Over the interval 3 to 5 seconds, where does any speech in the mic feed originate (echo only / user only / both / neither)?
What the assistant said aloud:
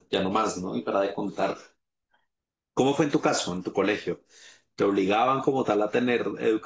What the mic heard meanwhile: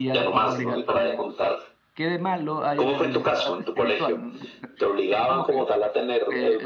both